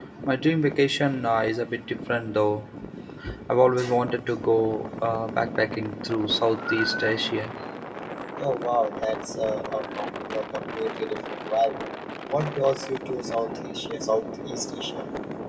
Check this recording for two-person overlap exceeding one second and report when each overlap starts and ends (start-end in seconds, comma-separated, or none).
none